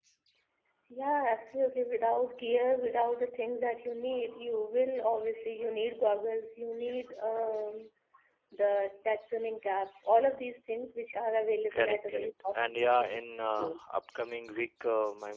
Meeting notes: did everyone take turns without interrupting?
No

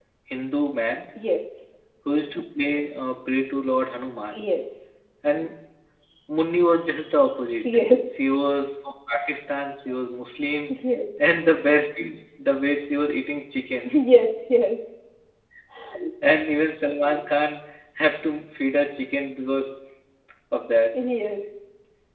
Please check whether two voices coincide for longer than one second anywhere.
No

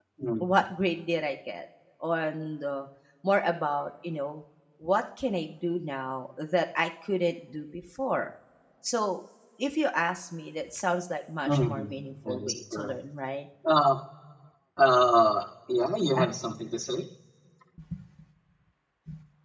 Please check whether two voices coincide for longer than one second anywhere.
Yes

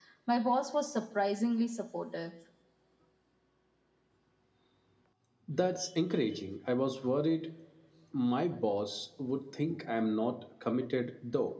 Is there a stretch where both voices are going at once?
No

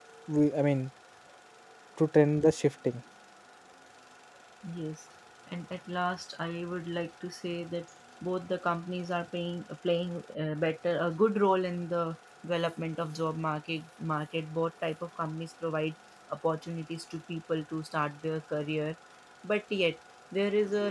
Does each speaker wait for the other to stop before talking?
Yes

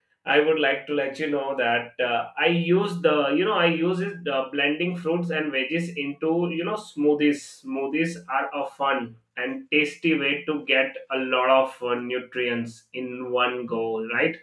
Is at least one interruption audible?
No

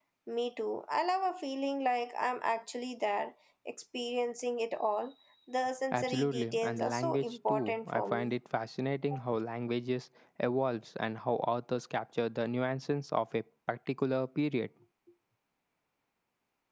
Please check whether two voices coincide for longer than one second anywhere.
Yes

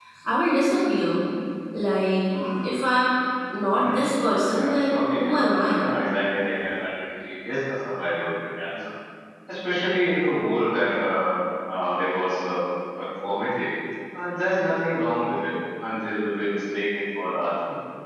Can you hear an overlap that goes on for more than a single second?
Yes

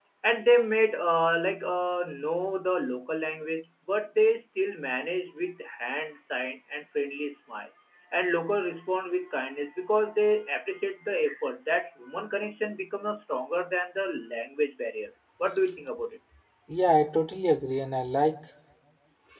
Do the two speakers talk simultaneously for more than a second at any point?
No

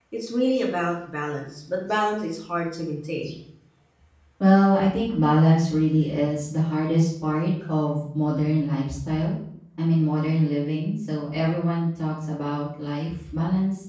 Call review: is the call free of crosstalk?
Yes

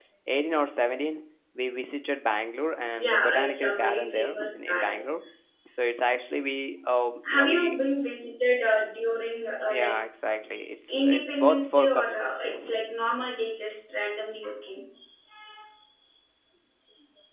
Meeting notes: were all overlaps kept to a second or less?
No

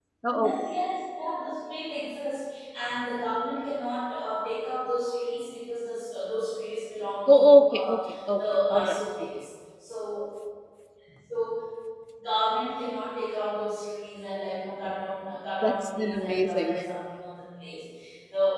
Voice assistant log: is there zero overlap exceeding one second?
No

